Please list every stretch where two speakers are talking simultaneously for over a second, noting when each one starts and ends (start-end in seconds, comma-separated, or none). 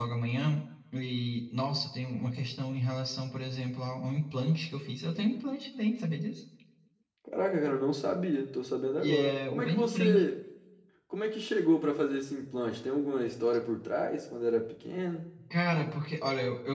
9.0-10.2